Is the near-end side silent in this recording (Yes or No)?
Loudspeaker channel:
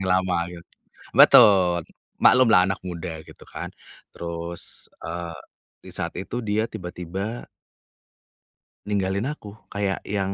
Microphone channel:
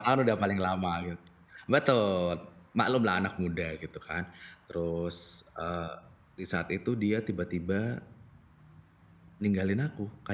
Yes